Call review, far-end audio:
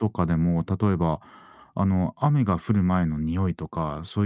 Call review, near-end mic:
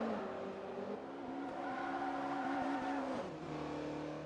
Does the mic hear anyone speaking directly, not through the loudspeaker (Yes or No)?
No